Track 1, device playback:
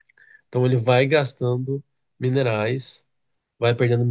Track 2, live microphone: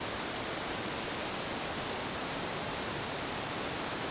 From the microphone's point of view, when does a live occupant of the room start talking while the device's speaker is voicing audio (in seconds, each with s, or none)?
none